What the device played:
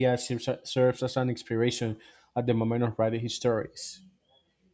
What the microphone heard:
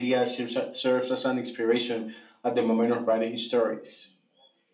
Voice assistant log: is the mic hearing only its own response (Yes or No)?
Yes